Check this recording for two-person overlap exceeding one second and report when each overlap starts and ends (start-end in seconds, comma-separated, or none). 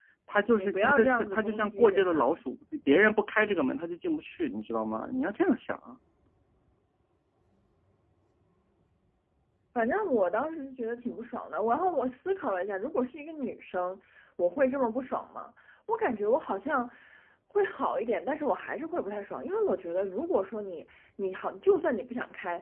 0.6-2.4